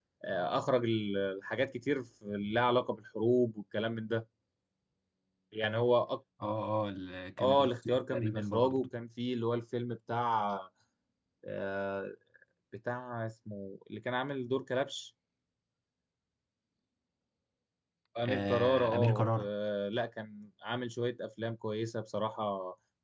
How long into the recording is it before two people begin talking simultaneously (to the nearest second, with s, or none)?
7 s